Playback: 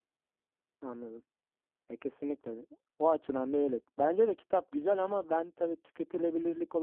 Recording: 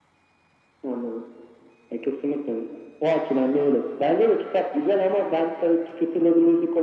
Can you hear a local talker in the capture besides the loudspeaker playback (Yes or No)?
No